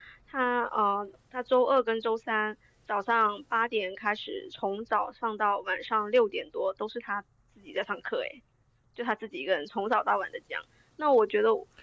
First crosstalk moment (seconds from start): none

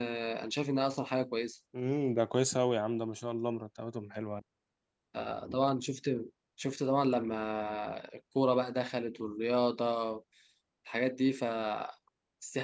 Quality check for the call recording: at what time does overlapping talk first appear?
none

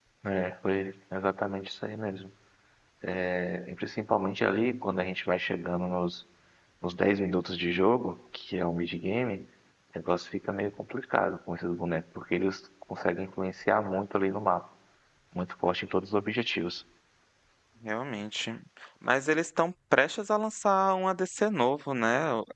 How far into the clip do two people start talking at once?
none

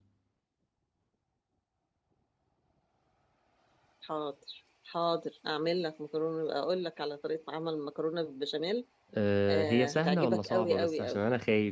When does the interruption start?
9 s

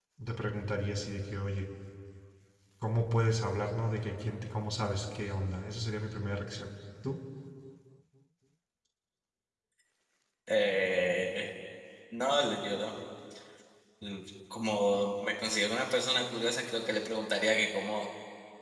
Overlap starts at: none

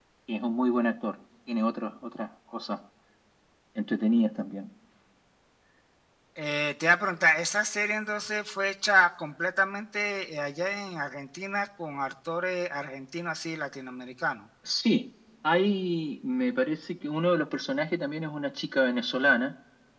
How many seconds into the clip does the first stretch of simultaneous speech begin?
none

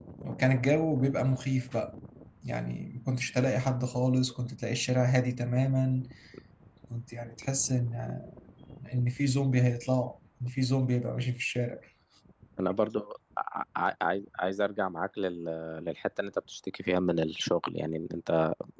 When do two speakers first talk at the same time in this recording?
none

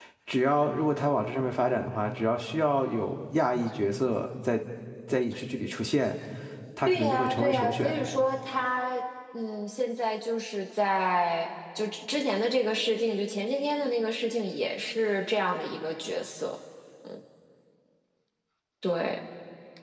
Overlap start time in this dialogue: 7 s

